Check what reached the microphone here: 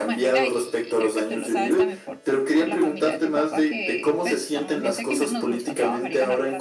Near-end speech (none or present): present